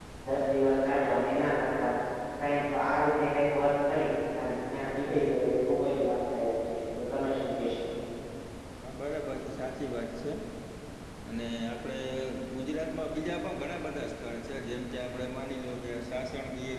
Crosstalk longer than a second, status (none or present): none